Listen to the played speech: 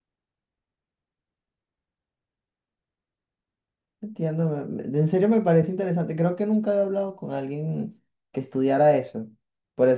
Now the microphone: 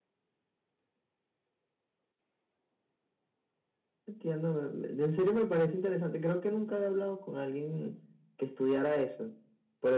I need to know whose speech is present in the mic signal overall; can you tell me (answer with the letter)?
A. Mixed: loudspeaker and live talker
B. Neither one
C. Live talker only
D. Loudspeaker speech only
D